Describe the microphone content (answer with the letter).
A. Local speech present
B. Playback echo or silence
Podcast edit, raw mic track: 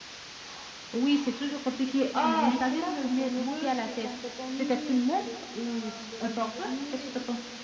A